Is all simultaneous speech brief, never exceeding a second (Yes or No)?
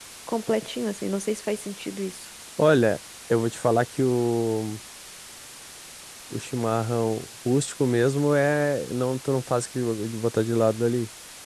Yes